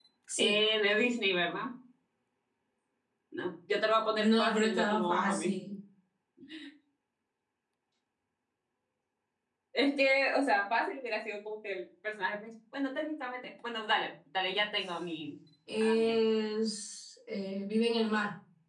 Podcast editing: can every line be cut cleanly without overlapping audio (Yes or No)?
No